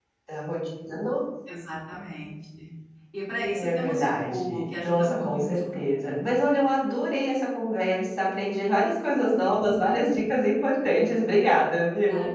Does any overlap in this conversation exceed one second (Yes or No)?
Yes